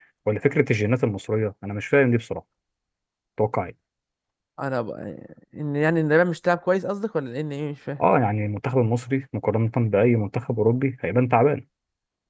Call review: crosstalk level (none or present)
none